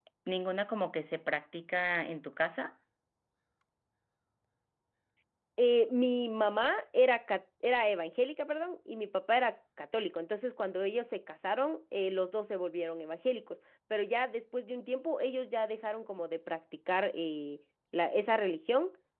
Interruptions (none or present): none